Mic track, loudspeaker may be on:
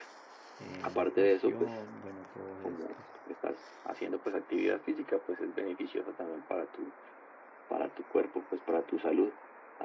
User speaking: Yes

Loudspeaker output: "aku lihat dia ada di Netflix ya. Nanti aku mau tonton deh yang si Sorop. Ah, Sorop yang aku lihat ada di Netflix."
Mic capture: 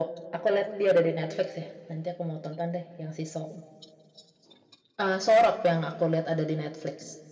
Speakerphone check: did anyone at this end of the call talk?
No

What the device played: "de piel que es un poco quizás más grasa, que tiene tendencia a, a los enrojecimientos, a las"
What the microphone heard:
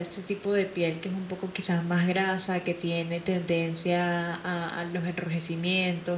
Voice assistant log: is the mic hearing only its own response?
Yes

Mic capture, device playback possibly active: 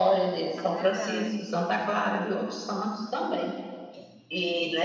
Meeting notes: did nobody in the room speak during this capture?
No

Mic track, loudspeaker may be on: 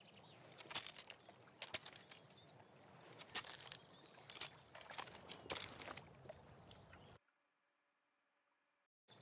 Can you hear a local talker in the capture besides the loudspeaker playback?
No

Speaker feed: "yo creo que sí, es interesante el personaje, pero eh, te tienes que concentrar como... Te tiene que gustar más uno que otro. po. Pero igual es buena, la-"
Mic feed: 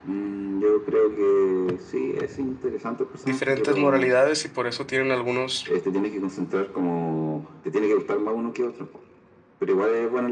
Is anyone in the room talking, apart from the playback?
Yes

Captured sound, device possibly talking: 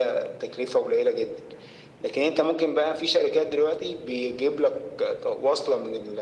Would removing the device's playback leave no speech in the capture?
Yes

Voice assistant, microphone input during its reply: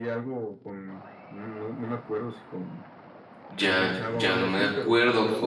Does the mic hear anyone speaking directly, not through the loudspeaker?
Yes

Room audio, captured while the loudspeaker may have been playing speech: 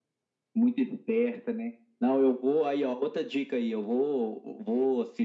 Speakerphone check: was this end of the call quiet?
Yes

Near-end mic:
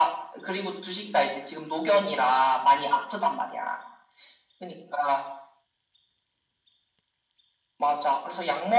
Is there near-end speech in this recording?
No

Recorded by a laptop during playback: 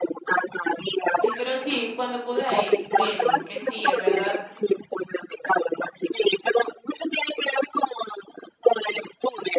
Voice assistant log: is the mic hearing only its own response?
No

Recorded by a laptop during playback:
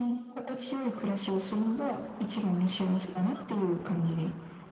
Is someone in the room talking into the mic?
No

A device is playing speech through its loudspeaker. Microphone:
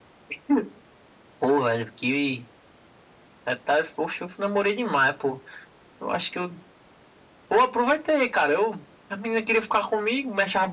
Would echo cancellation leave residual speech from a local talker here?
No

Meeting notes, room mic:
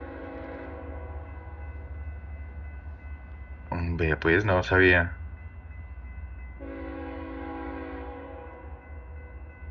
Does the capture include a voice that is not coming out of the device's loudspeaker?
Yes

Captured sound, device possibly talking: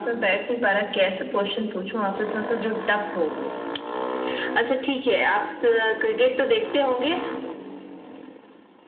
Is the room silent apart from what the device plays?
Yes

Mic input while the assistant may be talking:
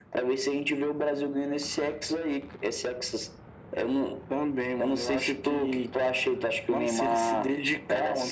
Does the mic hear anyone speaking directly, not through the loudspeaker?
No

